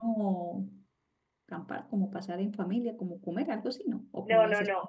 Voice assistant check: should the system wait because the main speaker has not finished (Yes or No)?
No